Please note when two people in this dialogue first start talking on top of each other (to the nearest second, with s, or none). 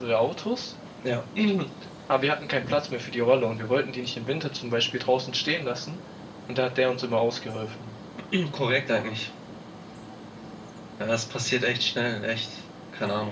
none